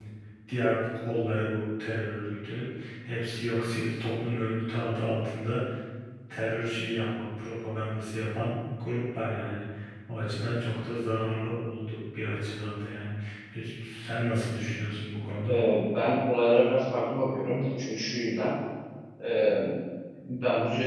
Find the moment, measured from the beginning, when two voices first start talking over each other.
none

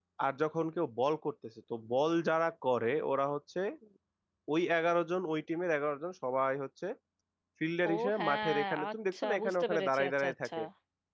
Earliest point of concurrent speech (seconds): 7.9 s

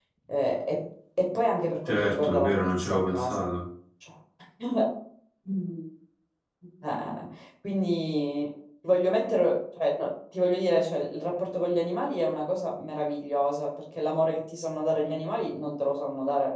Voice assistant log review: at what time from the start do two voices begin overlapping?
1.9 s

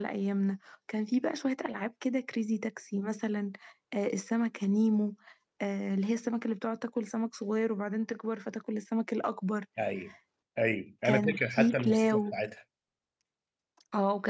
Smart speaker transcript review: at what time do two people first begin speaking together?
11.0 s

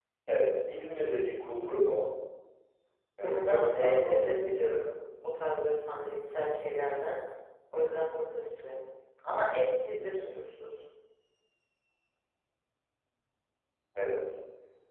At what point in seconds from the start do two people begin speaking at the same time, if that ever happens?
3.2 s

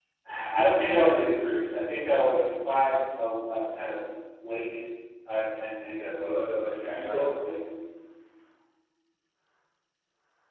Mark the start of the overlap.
5.8 s

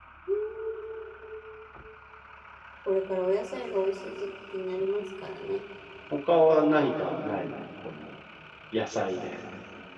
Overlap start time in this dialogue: none

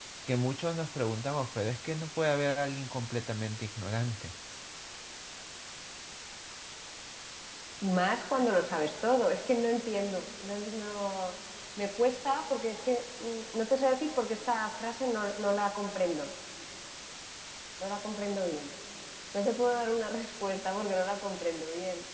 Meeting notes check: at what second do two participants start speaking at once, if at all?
none

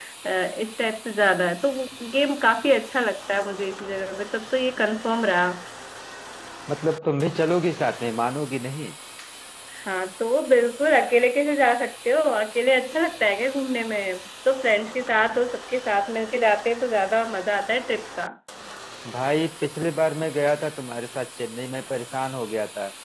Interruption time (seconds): none

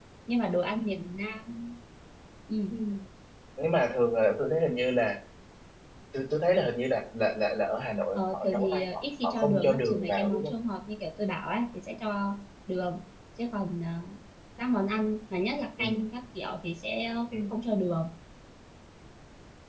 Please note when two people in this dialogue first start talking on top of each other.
8.2 s

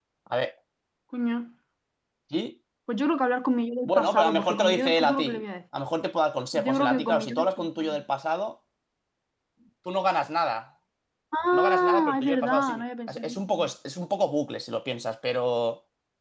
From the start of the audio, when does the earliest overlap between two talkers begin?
3.9 s

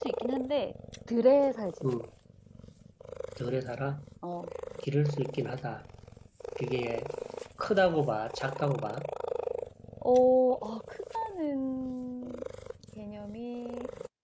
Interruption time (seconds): none

